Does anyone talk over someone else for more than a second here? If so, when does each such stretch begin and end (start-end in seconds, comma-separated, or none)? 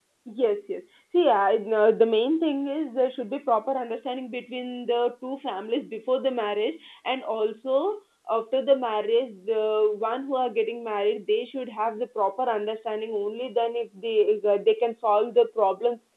none